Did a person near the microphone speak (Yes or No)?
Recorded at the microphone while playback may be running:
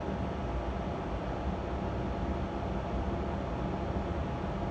No